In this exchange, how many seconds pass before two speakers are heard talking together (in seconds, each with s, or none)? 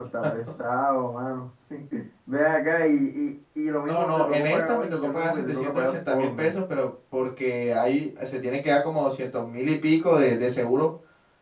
3.8 s